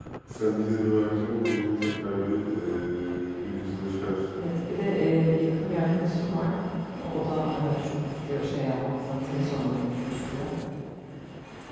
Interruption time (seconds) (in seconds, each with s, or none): none